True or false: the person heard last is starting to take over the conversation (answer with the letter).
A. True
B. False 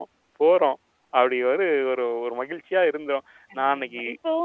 A